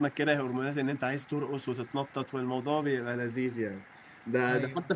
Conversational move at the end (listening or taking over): listening